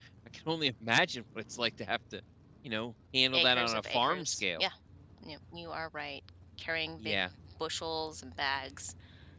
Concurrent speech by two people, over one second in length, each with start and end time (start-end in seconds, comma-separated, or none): 3.3-4.7